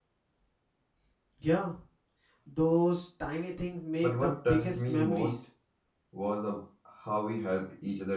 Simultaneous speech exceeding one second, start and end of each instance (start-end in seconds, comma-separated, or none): 4.0-5.3